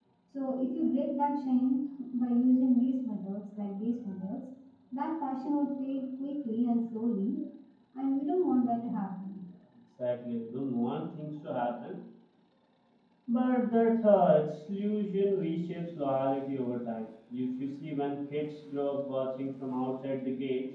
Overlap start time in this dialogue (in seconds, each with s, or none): none